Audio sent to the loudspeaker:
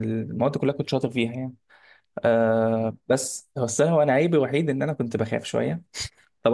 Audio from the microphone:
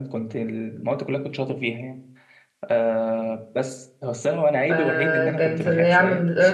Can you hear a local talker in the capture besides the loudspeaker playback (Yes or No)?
Yes